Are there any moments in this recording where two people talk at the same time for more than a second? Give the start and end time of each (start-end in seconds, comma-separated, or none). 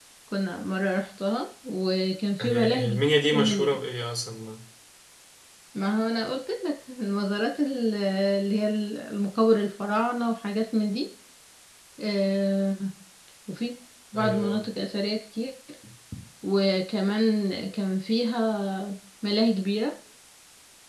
2.4-3.7